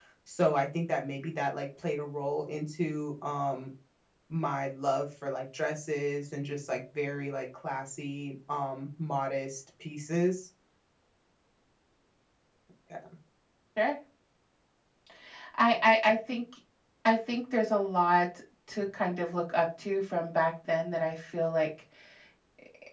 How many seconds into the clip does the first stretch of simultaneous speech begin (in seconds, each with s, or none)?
none